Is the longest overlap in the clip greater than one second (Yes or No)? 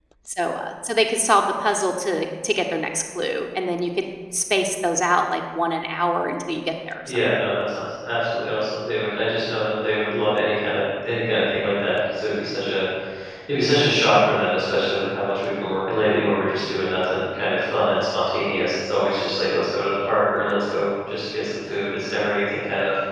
No